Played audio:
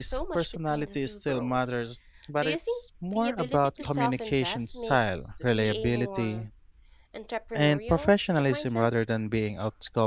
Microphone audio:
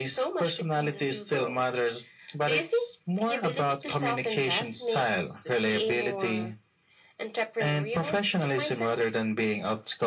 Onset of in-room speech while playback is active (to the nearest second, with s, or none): none